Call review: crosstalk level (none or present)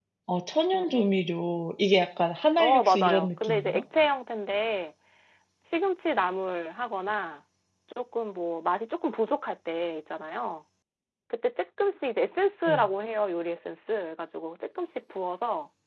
present